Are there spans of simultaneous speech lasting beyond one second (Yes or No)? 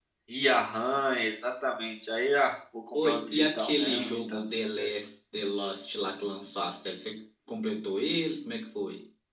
Yes